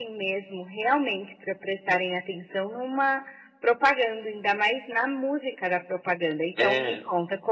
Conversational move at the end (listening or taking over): listening